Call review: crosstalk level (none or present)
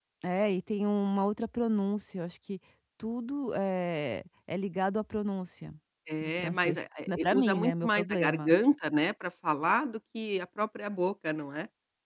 present